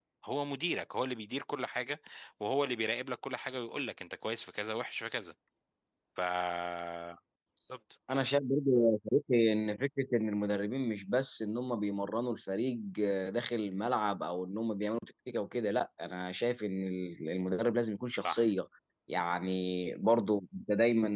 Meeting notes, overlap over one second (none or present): none